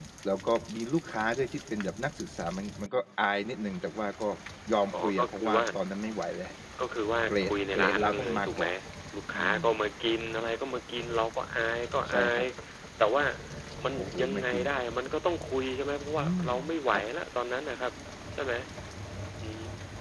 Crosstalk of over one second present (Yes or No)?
Yes